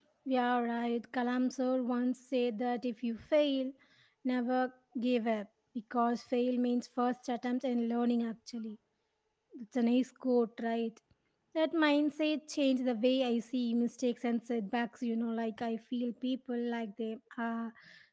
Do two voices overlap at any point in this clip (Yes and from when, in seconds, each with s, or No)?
No